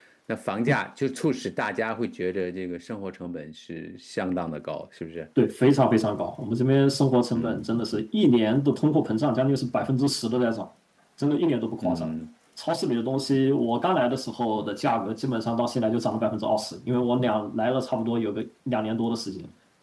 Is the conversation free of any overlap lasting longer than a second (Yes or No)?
Yes